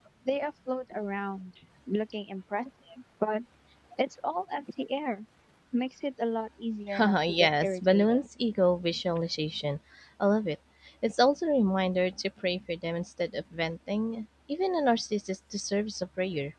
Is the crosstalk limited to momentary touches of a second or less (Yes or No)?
No